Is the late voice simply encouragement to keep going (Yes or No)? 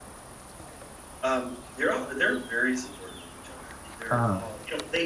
Yes